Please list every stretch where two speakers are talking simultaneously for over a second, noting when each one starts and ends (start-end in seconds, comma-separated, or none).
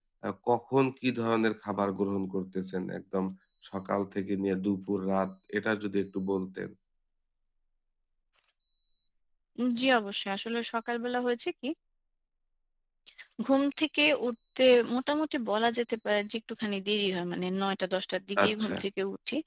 none